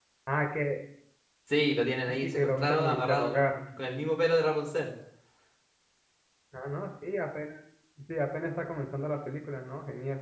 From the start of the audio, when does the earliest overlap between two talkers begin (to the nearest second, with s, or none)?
2 s